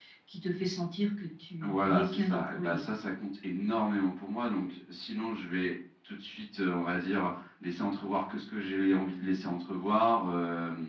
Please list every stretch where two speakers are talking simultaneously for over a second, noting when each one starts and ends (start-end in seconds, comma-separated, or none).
1.6-2.9